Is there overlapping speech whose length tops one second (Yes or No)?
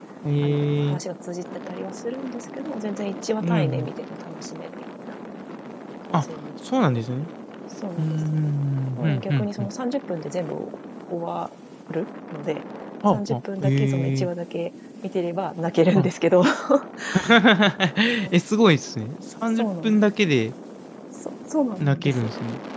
Yes